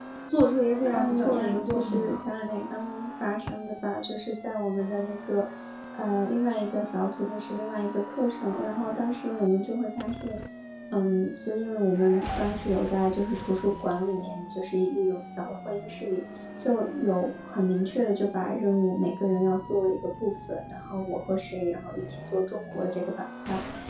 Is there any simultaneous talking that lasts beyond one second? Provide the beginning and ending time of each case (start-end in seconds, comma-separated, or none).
0.9-2.2